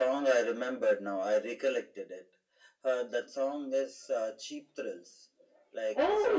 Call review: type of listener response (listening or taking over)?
taking over